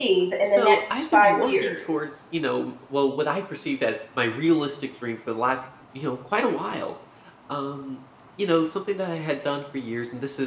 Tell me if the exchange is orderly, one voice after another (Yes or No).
No